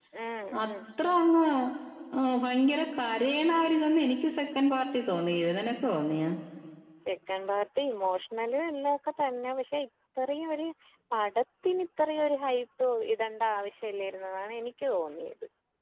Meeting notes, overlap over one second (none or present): none